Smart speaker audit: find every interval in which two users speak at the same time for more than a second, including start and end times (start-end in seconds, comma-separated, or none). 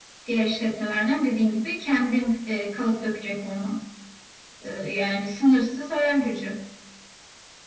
none